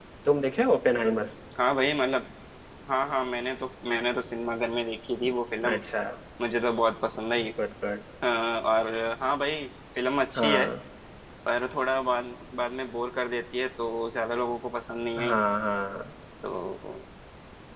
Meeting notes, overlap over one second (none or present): none